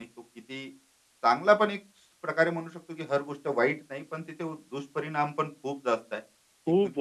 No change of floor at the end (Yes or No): No